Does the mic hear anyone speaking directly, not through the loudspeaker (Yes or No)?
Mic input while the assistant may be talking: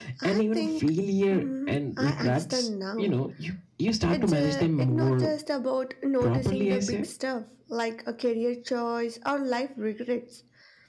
Yes